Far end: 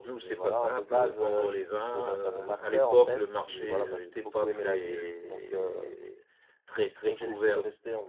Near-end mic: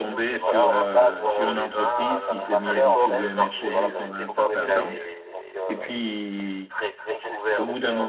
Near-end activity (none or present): present